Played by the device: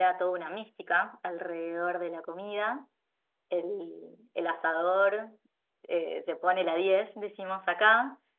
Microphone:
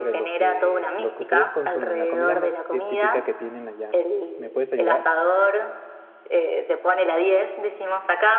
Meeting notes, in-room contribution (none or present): present